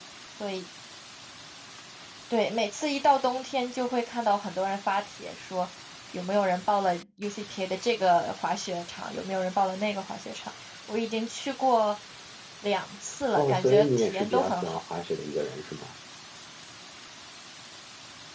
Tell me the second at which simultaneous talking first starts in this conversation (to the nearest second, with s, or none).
13 s